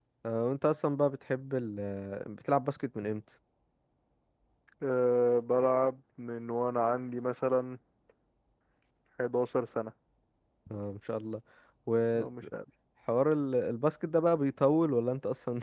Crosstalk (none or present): none